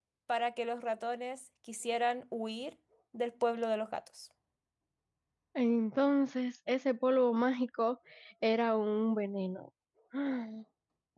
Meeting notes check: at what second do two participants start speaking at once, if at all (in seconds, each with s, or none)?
none